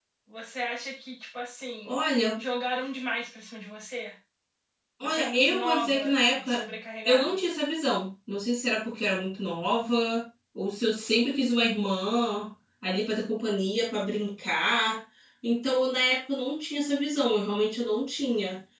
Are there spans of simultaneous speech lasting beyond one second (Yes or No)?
Yes